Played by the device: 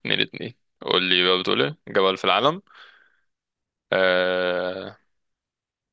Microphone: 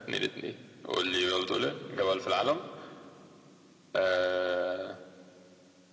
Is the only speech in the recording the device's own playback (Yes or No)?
Yes